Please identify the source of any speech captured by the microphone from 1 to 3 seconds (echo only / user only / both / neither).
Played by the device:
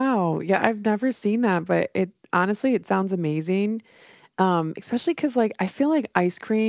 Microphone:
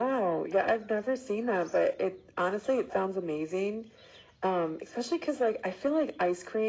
echo only